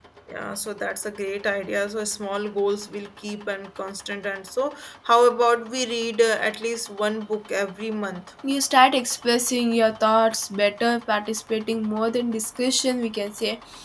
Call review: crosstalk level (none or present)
none